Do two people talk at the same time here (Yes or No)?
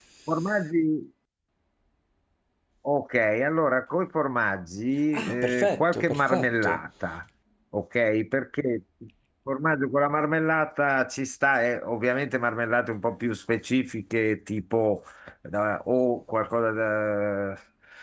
Yes